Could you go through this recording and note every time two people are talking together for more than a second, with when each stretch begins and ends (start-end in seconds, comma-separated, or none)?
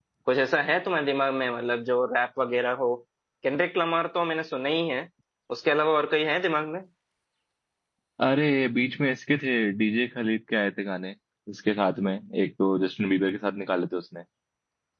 none